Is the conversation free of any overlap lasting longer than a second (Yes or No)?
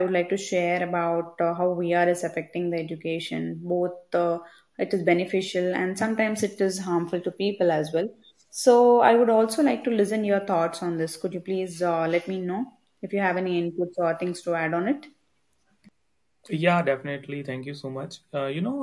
Yes